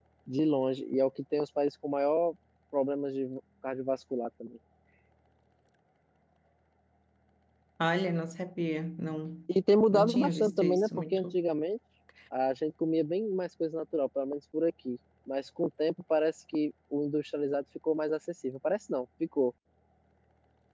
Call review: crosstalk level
present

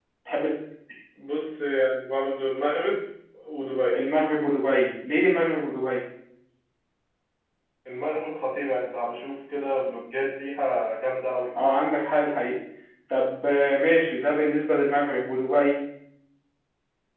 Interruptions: none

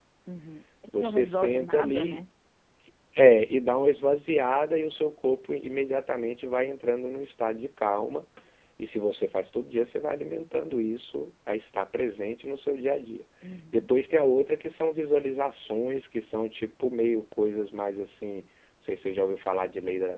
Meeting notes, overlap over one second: present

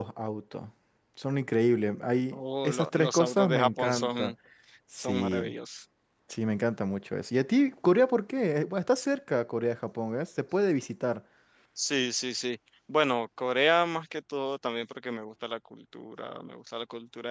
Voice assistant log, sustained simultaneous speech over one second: present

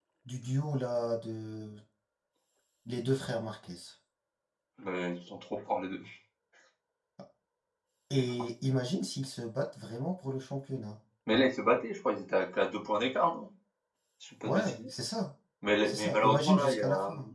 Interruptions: present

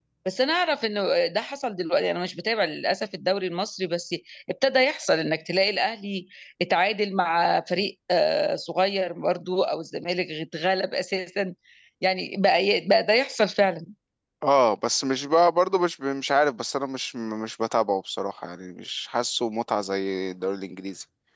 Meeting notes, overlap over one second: none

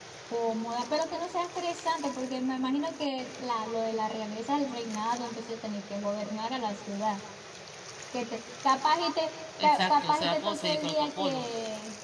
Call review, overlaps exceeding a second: present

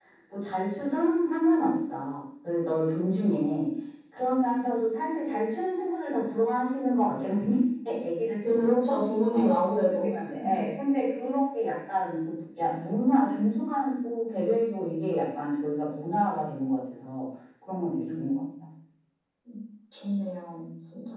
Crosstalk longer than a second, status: none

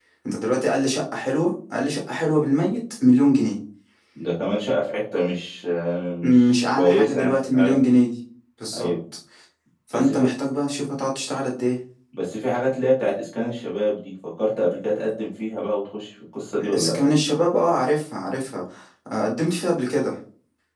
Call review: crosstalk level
present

